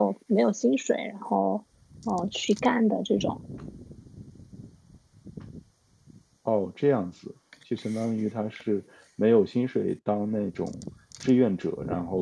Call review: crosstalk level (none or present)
none